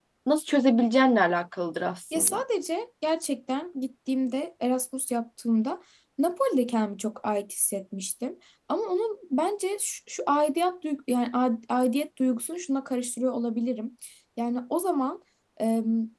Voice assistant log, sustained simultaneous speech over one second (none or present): none